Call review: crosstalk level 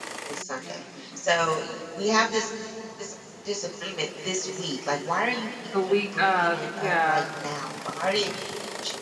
present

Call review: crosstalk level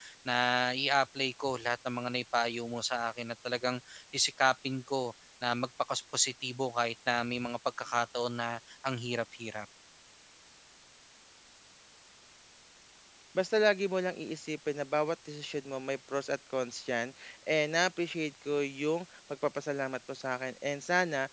none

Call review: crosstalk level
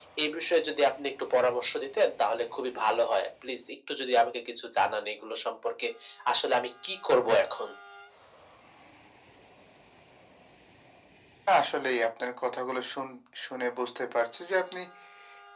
none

